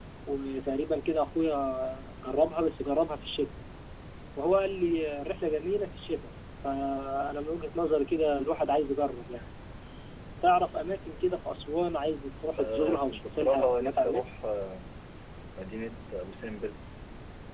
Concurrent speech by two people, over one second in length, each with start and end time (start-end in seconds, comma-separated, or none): 12.6-14.2